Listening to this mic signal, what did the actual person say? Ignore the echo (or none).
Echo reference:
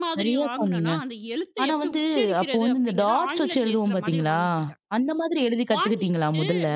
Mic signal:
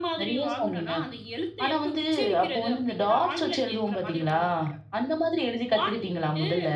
none